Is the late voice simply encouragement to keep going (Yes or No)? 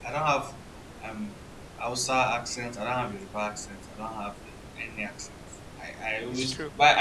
Yes